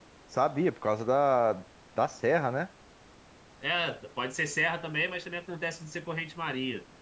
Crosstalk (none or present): none